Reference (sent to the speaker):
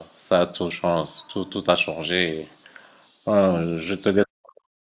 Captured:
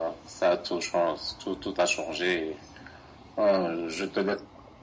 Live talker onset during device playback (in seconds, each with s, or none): none